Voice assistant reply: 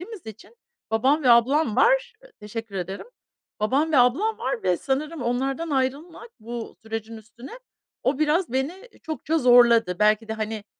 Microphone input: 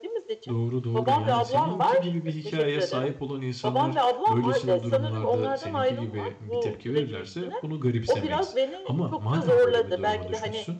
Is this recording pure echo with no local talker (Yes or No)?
No